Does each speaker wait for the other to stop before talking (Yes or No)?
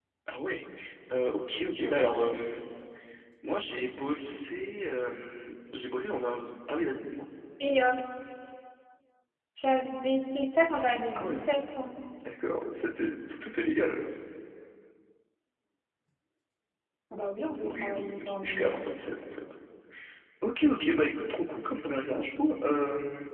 No